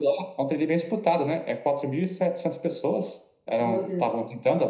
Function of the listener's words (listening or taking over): listening